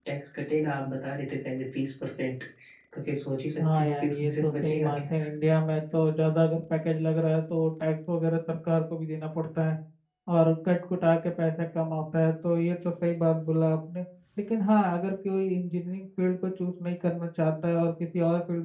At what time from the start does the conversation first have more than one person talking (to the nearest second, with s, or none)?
4 s